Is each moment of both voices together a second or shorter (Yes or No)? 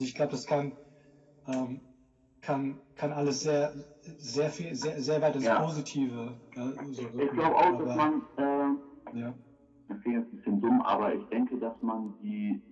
No